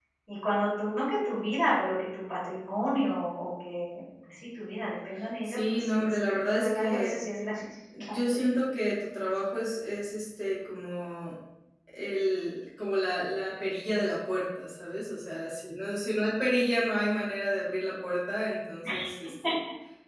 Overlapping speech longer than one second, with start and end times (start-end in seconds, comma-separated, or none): 5.4-7.2